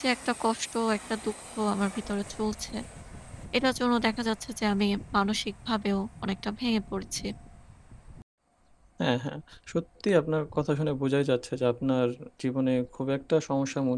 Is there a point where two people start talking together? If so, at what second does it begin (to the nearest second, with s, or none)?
none